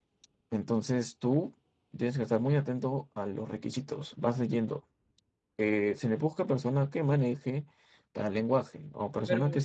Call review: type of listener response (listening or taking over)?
listening